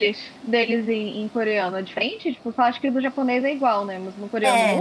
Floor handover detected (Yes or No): Yes